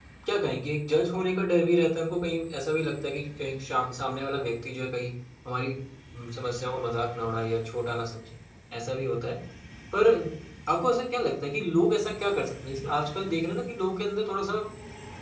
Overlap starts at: none

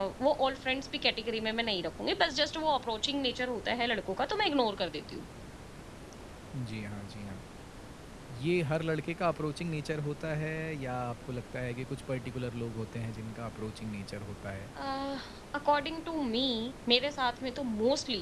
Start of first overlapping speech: none

